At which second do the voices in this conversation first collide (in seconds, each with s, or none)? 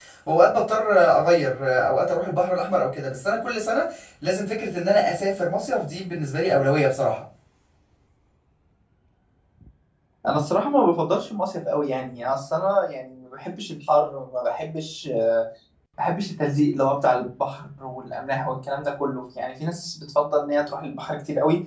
none